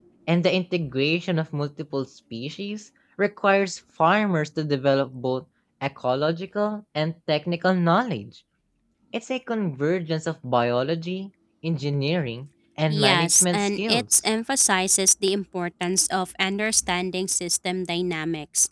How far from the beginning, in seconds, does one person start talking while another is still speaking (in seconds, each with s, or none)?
12.9 s